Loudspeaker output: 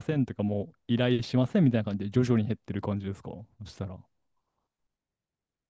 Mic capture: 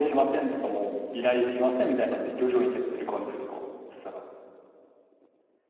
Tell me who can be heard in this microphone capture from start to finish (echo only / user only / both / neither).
echo only